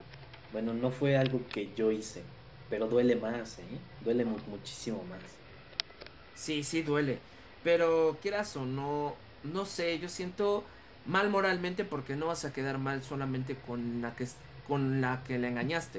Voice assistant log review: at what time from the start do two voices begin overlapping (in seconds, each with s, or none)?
none